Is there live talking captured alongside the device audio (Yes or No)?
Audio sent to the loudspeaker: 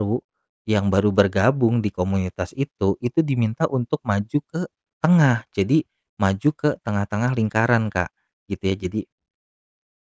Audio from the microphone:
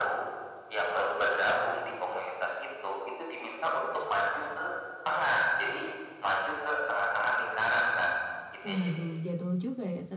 Yes